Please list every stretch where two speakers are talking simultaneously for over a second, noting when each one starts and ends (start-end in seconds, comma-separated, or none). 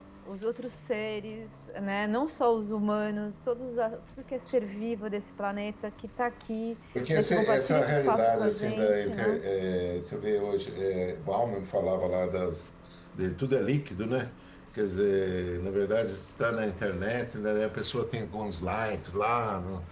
7.1-9.4